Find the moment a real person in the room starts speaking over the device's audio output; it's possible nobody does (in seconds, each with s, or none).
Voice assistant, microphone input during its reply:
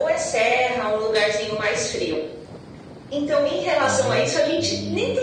3.8 s